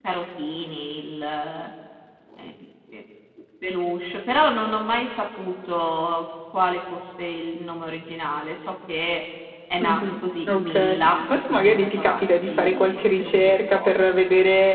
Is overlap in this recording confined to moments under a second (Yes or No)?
No